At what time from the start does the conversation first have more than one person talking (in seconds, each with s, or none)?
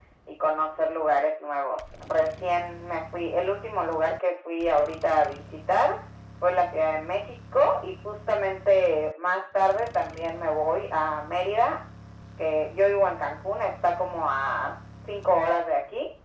none